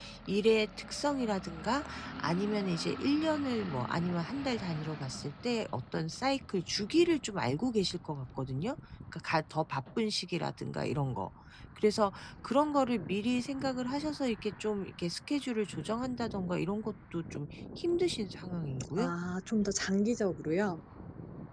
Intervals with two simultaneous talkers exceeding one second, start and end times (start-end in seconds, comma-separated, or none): none